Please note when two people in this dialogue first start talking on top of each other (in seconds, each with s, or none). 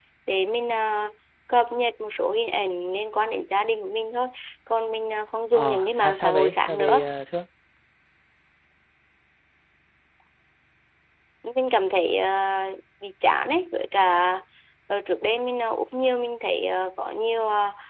5.5 s